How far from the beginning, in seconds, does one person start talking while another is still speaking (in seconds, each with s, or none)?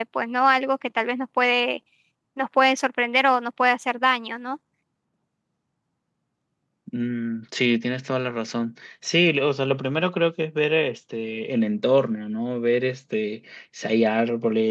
none